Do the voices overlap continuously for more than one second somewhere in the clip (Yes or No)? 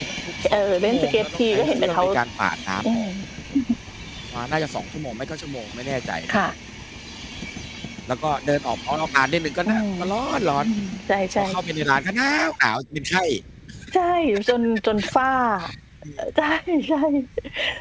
Yes